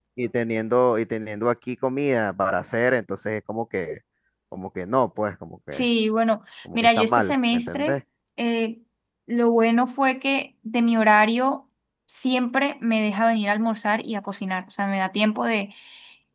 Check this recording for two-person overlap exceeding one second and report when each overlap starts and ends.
6.7-7.9

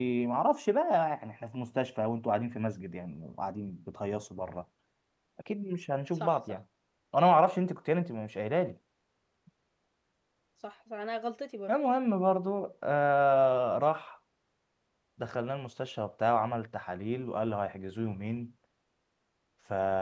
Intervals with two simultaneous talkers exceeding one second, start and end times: none

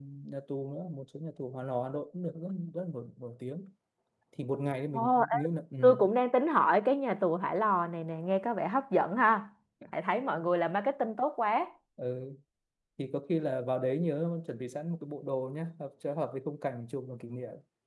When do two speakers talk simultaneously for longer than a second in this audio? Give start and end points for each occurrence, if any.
none

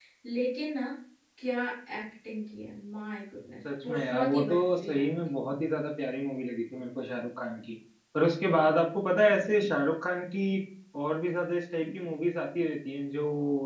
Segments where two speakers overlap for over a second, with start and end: 3.8-5.0

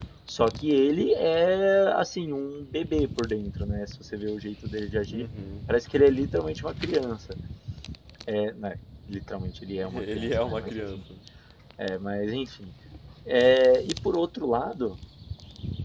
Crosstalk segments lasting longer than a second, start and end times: 9.8-11.0

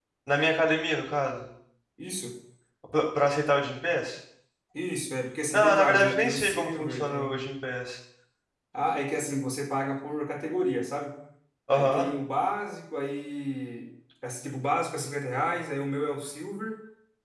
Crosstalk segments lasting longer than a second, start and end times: 5.5-7.5

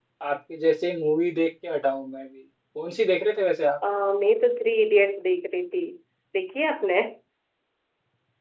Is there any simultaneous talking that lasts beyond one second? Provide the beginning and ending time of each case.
none

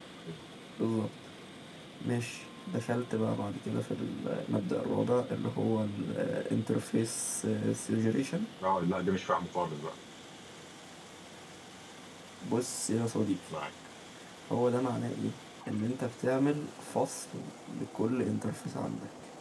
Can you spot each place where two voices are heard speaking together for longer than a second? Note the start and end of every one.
none

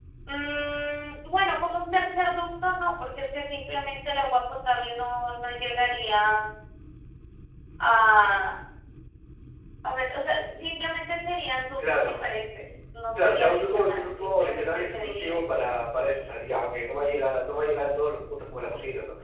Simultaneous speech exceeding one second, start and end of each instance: 13.2-15.4

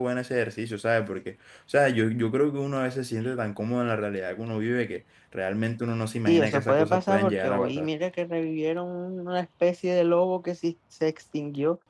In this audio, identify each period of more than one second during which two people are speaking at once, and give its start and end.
6.3-7.9

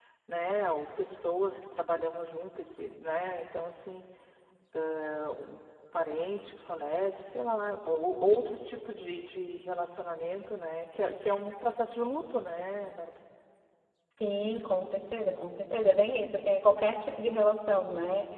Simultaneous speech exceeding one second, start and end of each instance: none

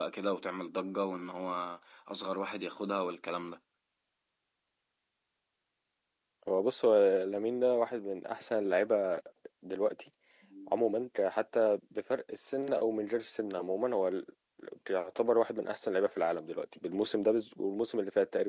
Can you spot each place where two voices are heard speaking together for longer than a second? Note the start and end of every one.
none

